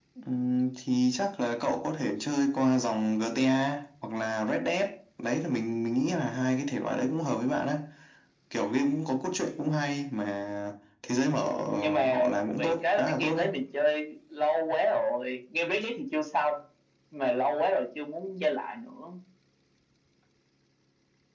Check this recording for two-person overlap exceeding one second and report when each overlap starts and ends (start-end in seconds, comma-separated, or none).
11.7-13.4